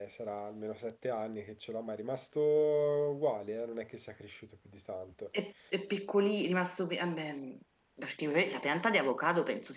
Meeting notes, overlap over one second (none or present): none